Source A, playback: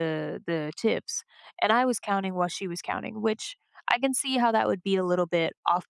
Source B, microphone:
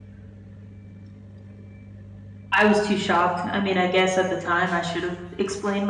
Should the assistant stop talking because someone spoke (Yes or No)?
Yes